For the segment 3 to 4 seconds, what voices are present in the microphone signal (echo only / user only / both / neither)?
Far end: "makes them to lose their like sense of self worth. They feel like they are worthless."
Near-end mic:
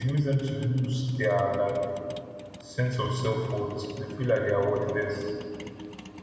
echo only